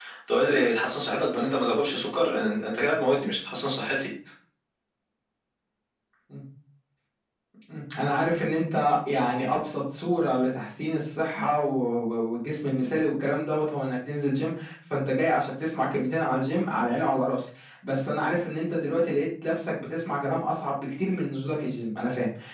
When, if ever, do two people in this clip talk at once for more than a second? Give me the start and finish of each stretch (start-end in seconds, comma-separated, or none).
none